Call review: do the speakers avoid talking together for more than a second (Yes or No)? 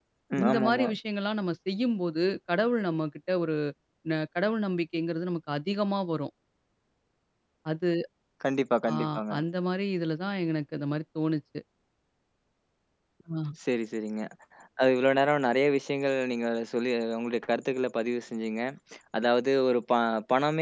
Yes